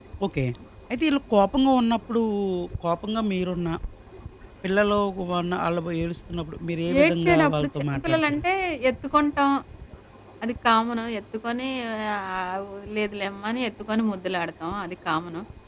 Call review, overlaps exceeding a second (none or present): present